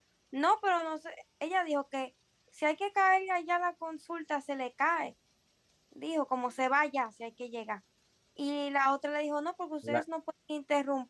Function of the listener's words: listening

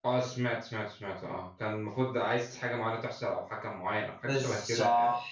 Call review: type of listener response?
taking over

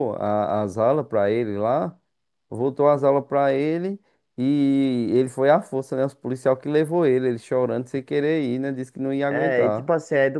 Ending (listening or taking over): taking over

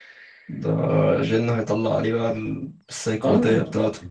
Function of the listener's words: taking over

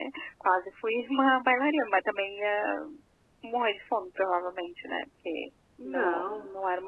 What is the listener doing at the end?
listening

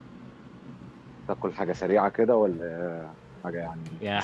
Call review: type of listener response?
taking over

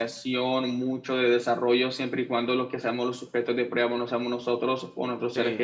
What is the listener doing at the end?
listening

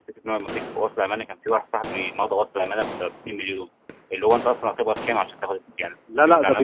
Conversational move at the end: taking over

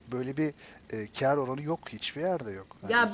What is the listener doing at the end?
taking over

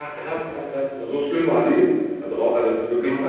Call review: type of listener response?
taking over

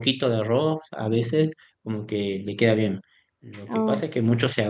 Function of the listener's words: listening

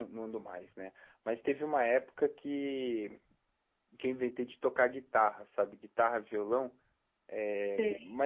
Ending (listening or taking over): listening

